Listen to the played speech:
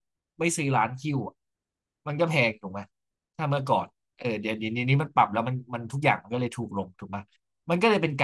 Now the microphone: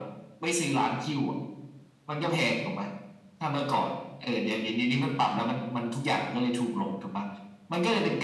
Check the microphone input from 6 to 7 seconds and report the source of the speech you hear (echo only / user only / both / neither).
echo only